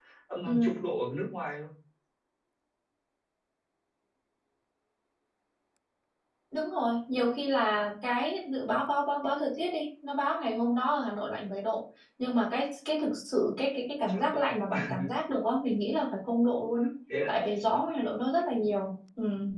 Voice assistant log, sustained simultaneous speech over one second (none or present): none